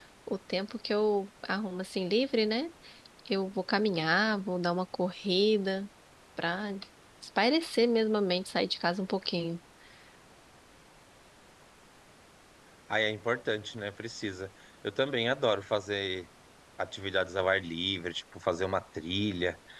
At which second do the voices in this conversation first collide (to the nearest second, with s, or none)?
none